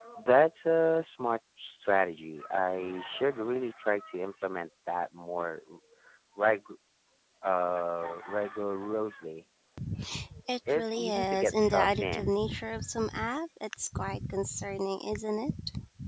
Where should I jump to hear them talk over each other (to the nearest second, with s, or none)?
11 s